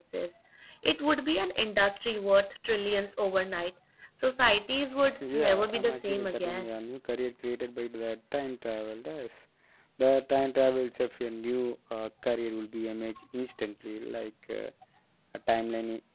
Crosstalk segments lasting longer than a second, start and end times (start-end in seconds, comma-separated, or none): 5.4-6.7